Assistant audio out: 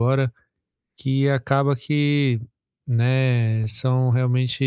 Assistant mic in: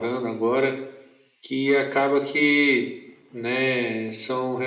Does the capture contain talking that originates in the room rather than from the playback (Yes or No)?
No